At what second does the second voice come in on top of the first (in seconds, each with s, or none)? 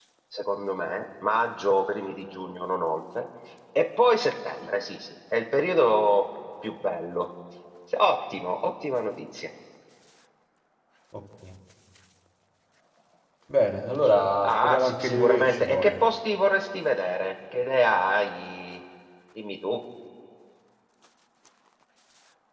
14.4 s